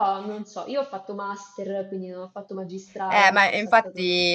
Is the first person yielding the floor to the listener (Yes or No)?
Yes